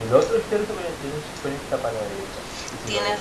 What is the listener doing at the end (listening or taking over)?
listening